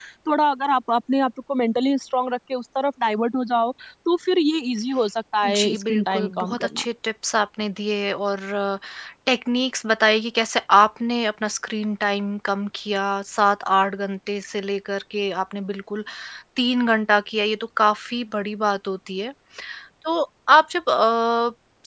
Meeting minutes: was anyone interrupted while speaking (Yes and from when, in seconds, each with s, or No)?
Yes, from 5.4 s